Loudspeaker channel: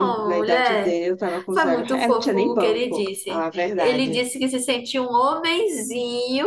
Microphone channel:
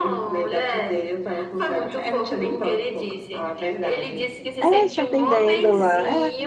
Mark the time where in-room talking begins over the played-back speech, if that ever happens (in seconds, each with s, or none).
4.6 s